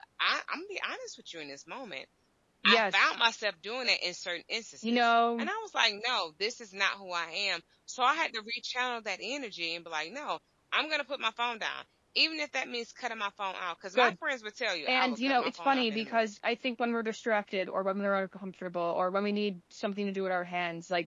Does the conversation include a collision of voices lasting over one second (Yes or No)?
Yes